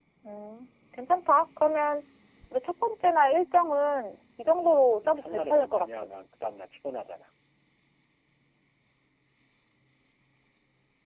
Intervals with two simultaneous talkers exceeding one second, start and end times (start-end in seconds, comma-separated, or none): 4.5-6.0